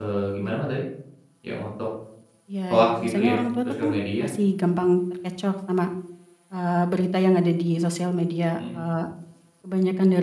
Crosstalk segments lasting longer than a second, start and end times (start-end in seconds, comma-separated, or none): 2.7-4.3